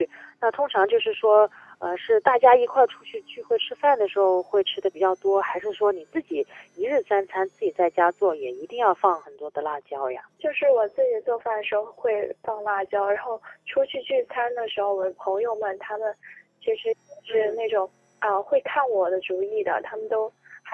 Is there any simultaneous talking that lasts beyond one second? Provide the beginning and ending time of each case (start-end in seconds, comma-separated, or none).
none